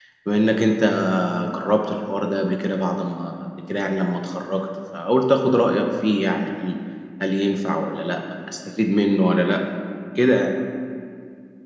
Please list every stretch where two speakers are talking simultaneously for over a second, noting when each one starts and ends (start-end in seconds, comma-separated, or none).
none